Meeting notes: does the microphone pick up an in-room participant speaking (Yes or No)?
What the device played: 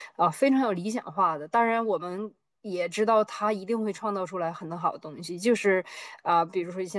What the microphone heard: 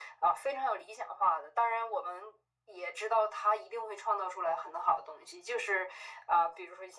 No